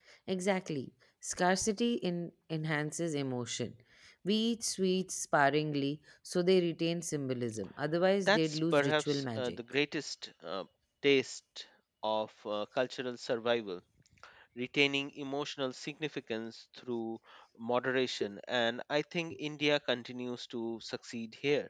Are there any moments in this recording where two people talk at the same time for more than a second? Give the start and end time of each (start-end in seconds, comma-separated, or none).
8.3-9.6